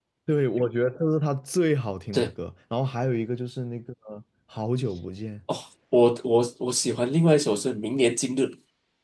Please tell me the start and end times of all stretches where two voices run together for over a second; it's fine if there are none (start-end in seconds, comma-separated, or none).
none